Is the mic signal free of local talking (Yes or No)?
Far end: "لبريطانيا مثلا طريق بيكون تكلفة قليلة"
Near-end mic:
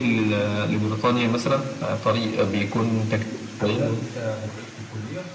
No